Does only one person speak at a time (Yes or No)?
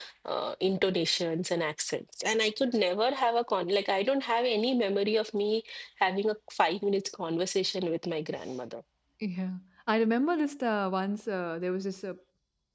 Yes